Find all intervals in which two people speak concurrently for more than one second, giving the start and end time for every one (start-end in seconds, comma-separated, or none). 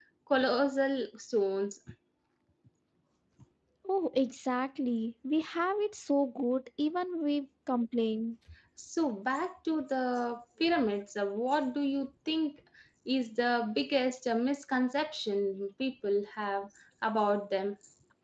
none